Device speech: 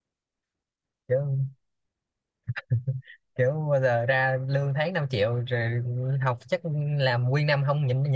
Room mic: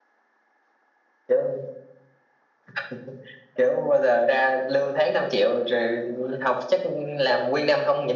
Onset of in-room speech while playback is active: none

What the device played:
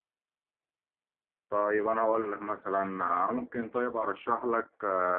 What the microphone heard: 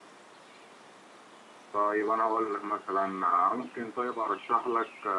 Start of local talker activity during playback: none

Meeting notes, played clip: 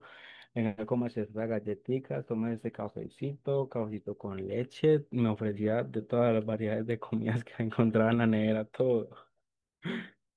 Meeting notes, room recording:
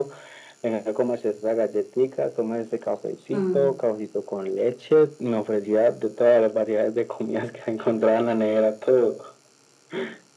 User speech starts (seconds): 3 s

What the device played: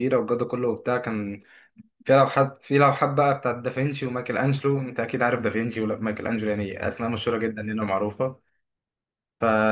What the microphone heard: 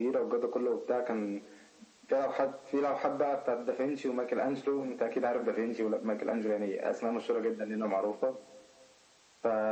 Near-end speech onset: none

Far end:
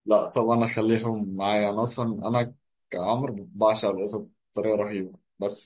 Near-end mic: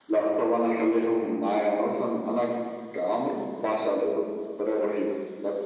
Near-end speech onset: none

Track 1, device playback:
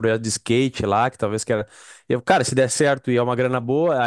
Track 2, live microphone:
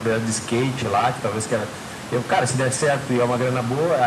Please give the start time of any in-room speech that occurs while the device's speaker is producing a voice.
none

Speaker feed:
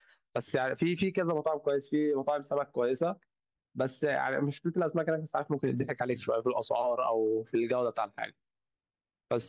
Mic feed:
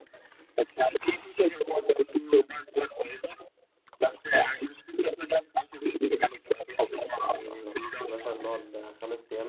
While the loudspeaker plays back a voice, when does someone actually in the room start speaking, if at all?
7 s

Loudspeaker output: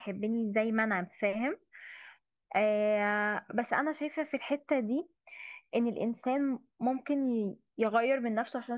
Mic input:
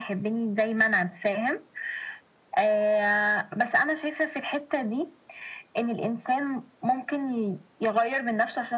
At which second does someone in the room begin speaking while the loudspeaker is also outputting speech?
none

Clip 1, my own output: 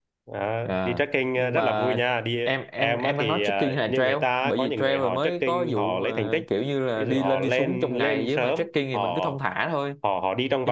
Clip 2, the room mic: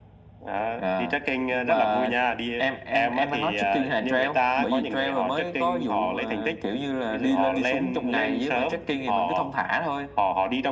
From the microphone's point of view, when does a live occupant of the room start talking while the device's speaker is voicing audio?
none

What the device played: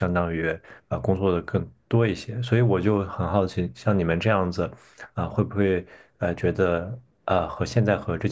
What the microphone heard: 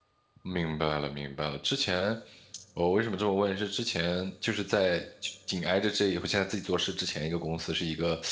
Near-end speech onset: 0 s

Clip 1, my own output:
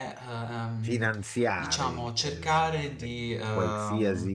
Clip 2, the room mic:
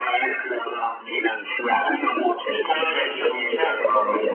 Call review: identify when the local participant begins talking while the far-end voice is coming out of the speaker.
2 s

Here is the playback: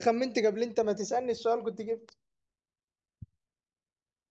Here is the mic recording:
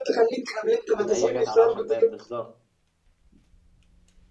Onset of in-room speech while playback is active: 1 s

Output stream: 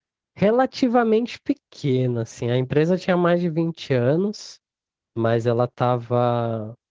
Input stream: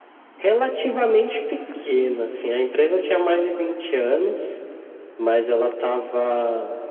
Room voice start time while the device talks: none

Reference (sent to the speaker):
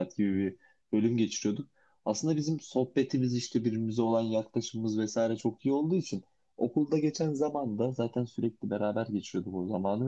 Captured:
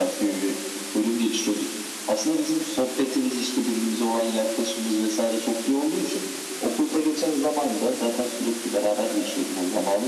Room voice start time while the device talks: none

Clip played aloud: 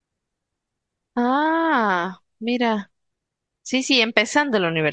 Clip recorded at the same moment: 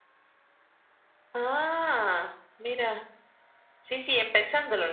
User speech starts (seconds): none

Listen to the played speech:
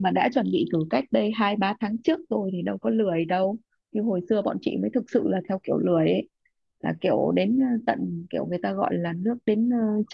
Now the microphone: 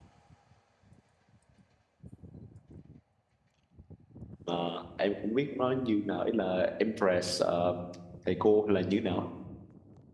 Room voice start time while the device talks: 4 s

